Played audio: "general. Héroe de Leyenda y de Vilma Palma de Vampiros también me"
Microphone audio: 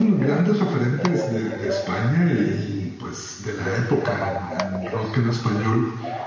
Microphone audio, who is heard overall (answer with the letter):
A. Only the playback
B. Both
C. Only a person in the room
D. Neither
B